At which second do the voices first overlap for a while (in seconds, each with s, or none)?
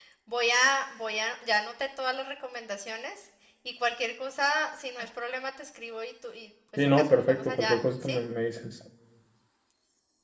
6.8 s